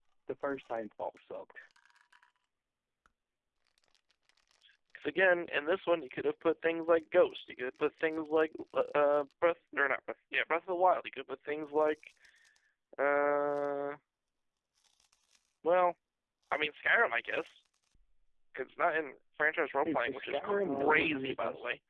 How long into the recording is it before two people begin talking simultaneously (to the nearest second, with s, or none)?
20 s